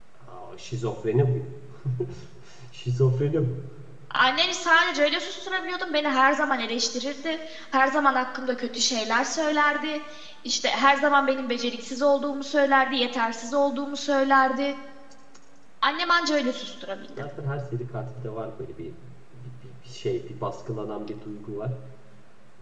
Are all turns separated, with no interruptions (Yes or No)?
Yes